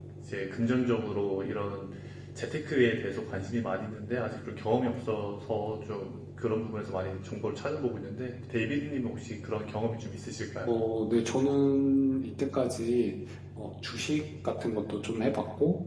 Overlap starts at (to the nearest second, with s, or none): none